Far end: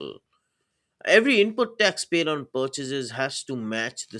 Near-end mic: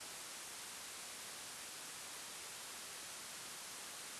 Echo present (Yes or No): No